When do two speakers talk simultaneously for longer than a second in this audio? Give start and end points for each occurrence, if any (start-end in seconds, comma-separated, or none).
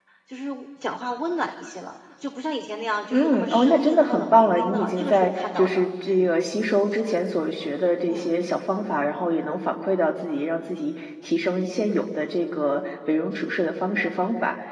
3.1-6.3